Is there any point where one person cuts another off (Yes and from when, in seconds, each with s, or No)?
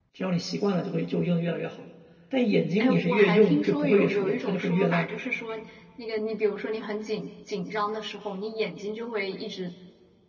Yes, from 2.8 s